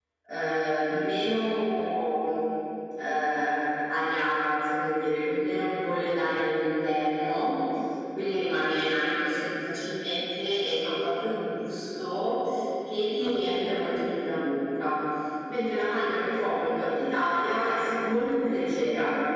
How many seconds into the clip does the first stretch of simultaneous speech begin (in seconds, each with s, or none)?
none